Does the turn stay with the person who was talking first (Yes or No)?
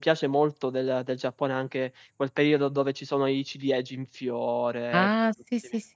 No